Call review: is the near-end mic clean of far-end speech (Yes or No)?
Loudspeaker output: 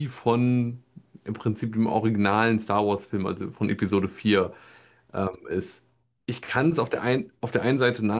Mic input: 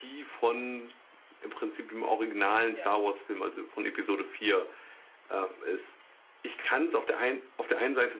No